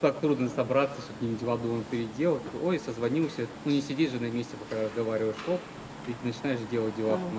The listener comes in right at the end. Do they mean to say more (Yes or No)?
Yes